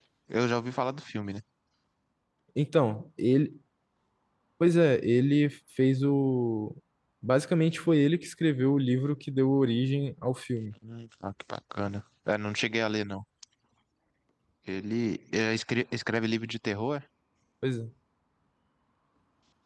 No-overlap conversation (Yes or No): Yes